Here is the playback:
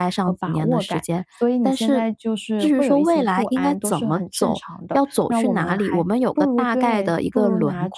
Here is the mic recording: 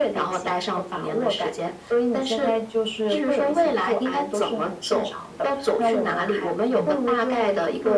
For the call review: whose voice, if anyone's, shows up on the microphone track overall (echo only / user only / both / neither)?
both